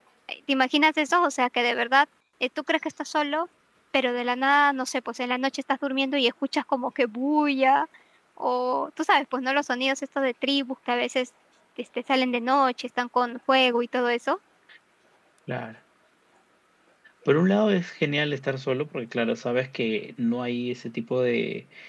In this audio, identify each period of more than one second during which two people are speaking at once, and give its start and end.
none

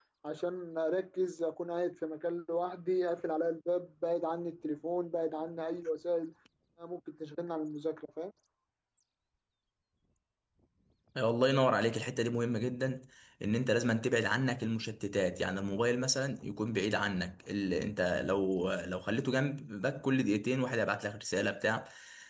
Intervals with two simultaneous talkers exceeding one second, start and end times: none

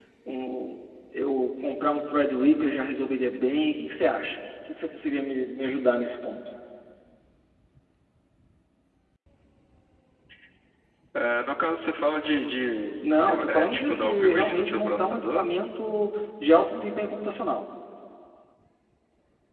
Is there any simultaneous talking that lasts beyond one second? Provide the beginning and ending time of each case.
13.5-15.5

